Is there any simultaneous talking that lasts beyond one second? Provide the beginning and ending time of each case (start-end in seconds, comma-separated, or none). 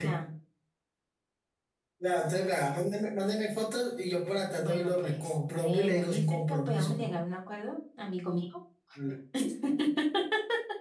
4.6-7.2